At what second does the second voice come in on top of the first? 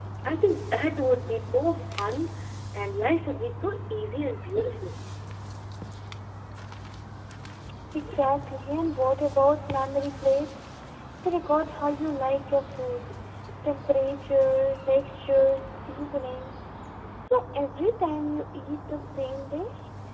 none

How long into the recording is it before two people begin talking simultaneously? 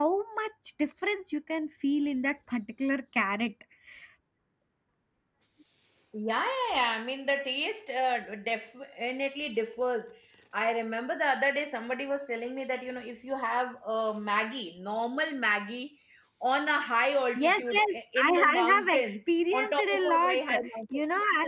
17.4 s

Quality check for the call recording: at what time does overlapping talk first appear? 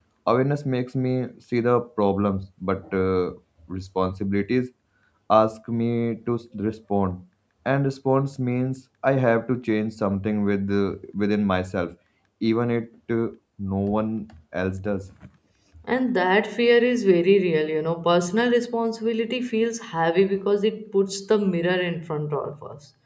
none

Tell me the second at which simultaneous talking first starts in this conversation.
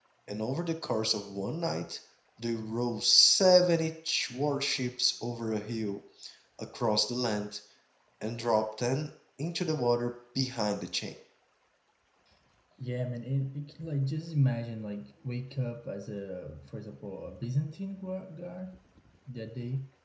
none

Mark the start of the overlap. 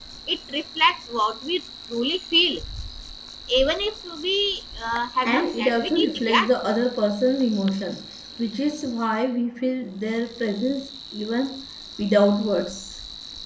5.2 s

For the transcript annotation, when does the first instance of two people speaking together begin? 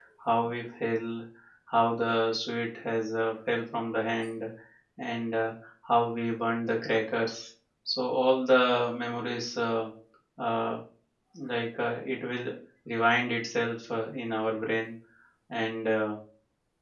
none

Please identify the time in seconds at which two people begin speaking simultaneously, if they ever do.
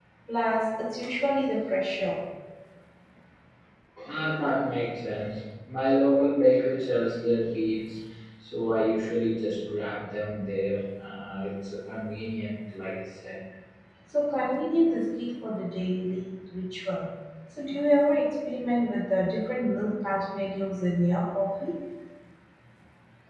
none

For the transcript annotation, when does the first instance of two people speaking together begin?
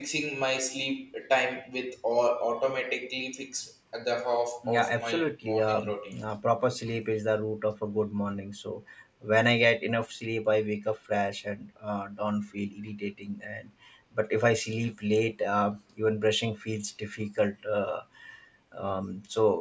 4.6 s

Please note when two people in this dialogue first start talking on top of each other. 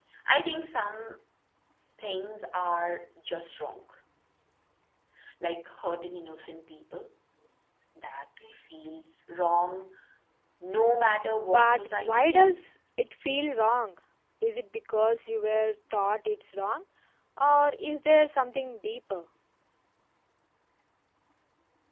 11.5 s

